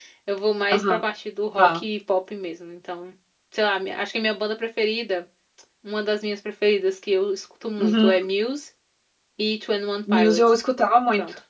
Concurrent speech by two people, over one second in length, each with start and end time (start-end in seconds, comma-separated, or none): none